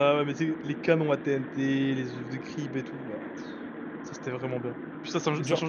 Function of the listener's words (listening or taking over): listening